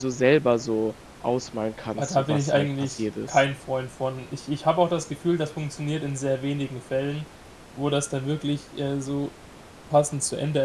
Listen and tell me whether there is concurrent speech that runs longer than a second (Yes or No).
Yes